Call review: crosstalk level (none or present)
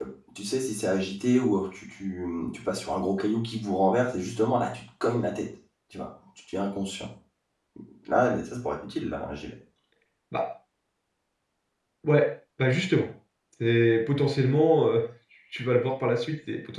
none